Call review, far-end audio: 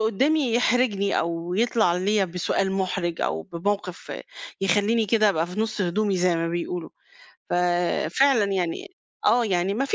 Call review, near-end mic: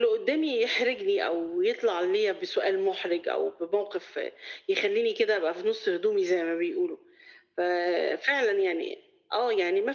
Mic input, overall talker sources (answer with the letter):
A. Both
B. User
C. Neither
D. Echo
D